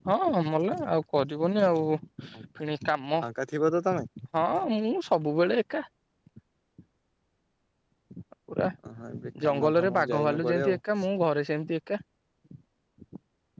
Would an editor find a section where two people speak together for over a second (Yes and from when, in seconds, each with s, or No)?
Yes, from 9.4 s